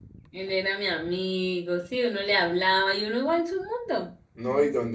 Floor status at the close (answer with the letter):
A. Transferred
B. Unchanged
A